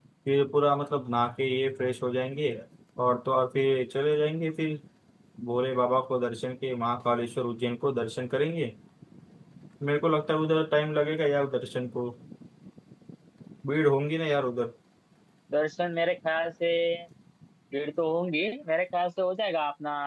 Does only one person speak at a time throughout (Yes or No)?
Yes